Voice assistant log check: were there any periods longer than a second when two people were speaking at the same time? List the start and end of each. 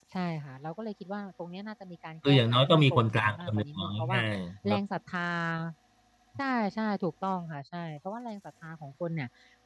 2.3-4.2

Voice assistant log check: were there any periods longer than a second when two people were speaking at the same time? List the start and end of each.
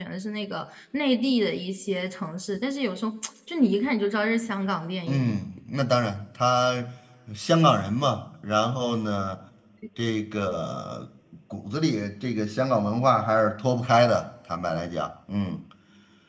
none

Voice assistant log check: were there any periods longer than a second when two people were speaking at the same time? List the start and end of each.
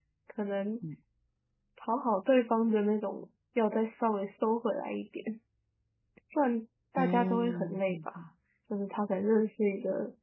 7.0-8.2

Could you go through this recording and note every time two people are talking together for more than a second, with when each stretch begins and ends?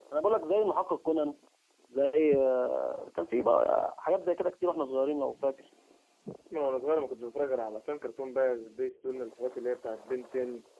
none

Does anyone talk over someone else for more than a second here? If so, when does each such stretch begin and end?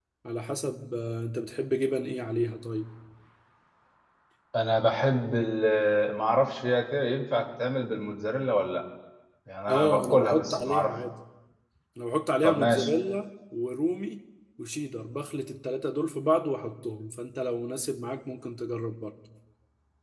9.7-10.9

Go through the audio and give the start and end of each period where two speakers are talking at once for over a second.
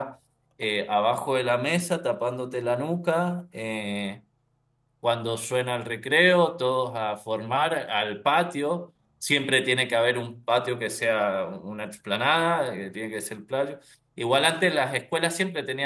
none

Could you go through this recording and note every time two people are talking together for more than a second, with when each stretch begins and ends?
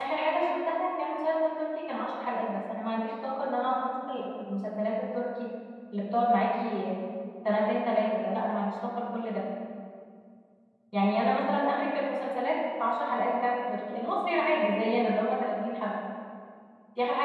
none

